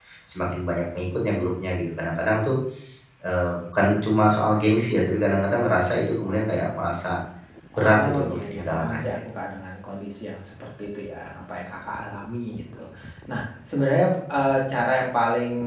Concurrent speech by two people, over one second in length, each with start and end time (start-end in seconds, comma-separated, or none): 7.8-9.2